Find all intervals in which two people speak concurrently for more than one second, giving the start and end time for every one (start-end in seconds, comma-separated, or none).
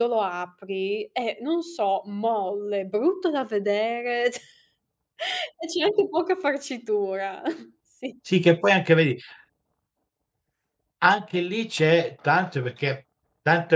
none